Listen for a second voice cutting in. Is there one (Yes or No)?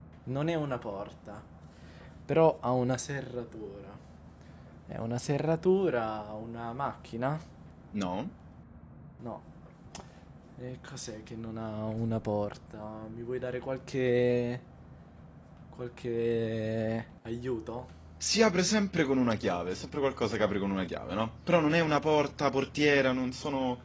No